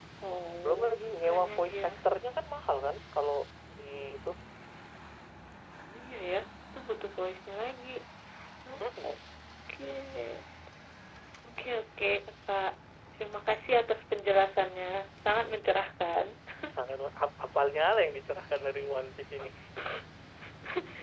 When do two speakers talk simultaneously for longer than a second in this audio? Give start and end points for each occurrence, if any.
0.6-1.9

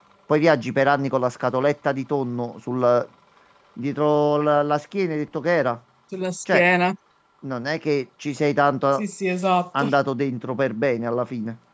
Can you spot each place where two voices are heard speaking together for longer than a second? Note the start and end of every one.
none

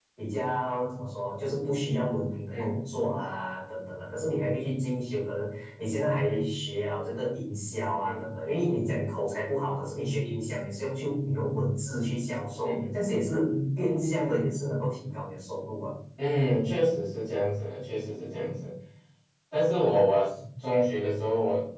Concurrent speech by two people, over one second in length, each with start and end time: none

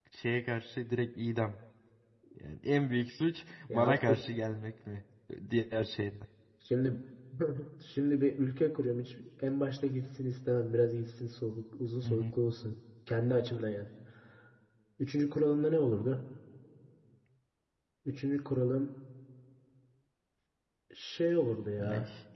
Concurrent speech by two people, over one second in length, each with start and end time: none

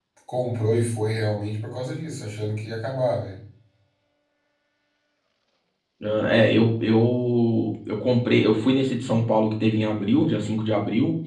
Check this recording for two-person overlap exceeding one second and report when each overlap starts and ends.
none

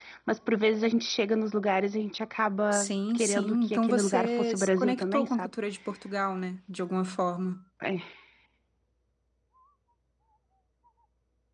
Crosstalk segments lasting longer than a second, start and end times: 2.7-5.5

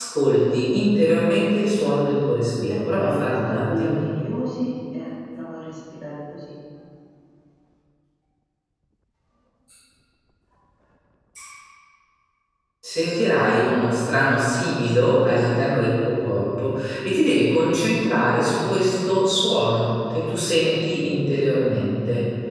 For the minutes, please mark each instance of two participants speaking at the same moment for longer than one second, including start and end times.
2.7-4.0

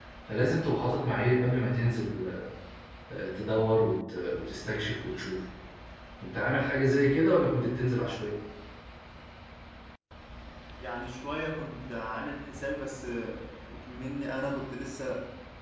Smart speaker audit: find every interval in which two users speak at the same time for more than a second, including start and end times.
none

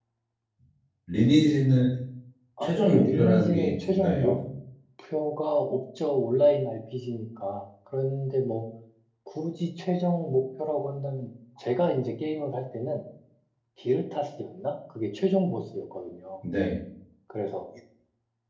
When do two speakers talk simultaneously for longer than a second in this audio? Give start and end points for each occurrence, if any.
2.6-4.2

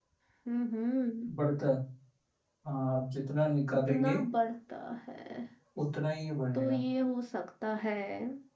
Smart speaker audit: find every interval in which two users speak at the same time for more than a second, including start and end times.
none

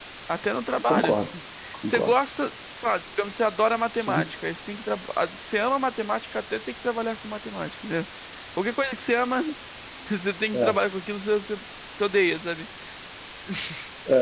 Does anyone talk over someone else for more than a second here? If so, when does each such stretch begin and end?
none

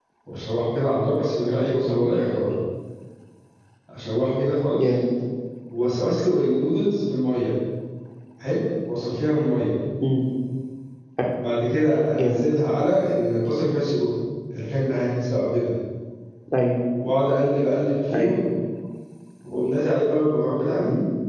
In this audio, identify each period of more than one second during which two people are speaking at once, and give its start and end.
none

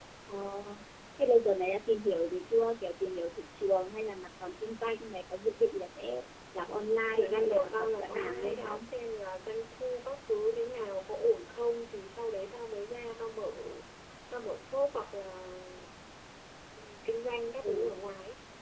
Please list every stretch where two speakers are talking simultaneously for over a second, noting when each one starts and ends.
7.1-8.8

